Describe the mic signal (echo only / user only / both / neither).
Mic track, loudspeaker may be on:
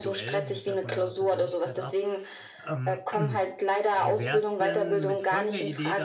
both